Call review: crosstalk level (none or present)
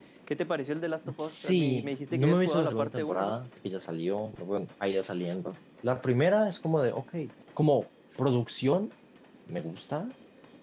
present